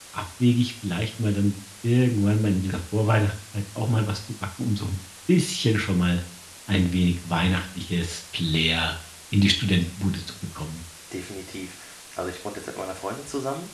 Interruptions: none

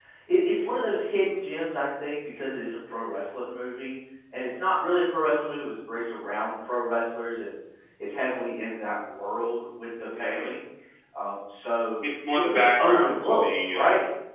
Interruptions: present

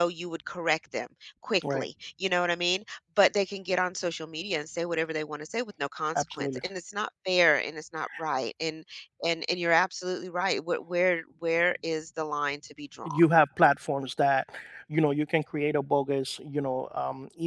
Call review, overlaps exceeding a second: none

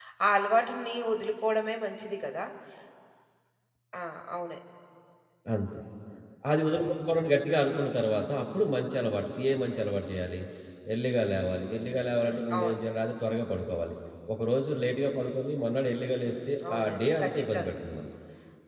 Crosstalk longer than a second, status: present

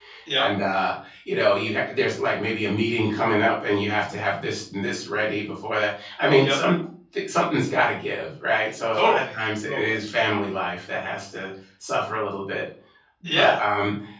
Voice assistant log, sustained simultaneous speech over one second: none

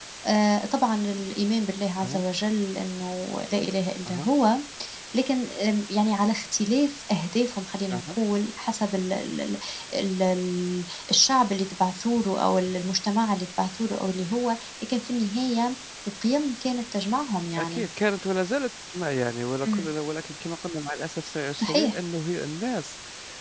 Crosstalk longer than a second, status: none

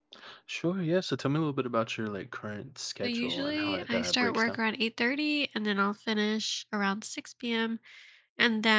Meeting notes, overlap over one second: present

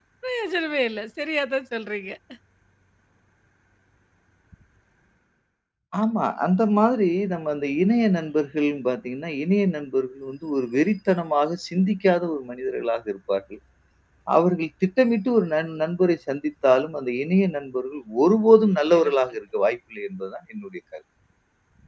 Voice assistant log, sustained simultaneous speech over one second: none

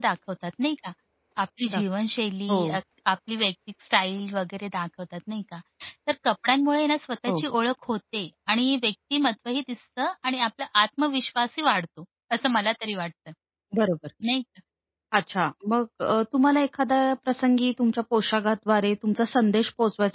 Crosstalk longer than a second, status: none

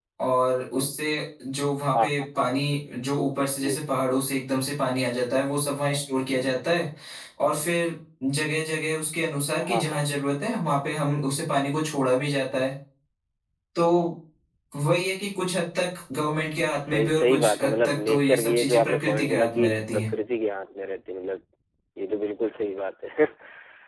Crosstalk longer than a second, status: present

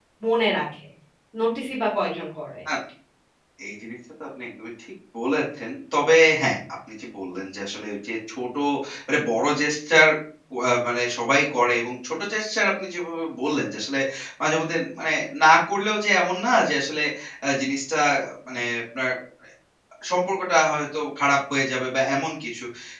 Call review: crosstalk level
none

